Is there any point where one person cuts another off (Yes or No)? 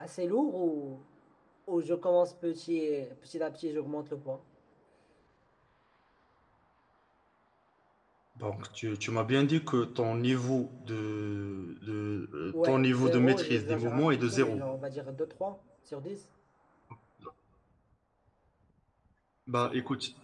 Yes